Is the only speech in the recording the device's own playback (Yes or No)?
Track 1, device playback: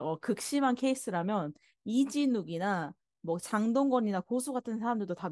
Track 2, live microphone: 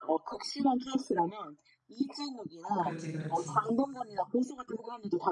No